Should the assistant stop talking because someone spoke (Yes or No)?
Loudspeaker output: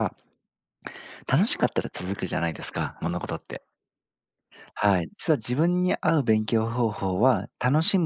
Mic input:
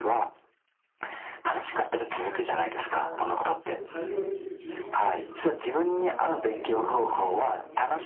Yes